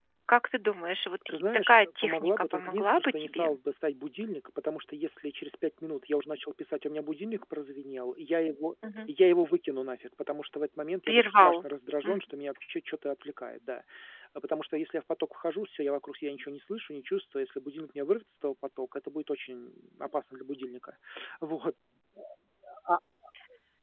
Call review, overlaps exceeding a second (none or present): present